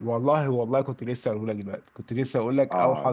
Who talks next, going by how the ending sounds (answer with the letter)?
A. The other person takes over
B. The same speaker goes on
A